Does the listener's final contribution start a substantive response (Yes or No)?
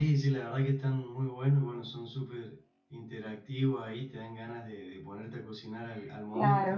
Yes